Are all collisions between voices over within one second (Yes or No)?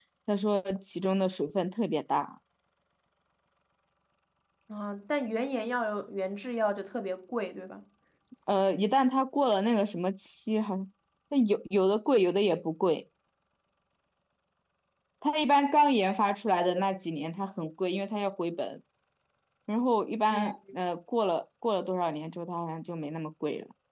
Yes